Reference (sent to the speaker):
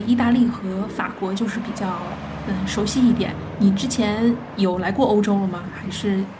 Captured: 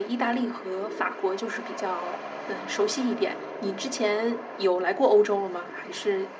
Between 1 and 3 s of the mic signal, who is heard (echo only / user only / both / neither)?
echo only